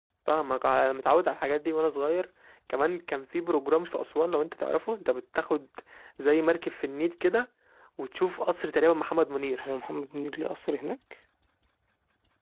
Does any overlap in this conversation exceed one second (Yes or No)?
No